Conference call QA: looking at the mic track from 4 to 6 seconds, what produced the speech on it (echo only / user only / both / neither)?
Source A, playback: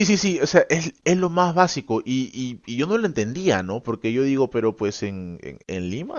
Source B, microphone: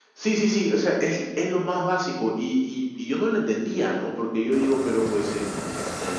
echo only